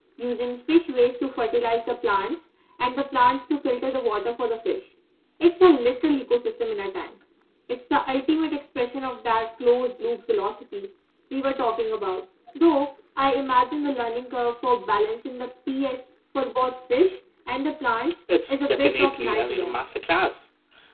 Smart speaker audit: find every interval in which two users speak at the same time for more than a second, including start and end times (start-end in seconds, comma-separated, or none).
18.5-19.8